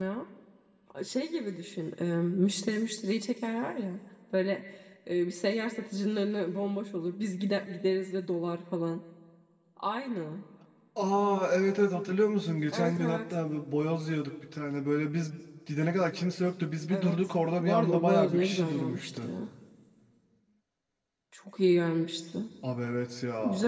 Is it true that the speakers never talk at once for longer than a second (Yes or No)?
No